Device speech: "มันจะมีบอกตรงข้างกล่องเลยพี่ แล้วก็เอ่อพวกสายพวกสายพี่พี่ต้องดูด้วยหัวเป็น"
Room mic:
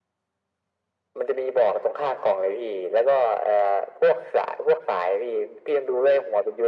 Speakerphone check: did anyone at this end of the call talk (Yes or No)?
No